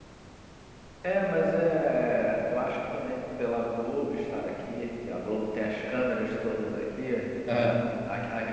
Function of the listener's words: listening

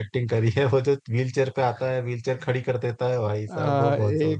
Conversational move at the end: taking over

